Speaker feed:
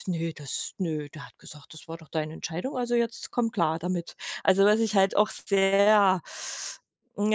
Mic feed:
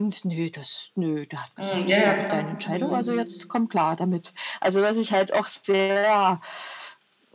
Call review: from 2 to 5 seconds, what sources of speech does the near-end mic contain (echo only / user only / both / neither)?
both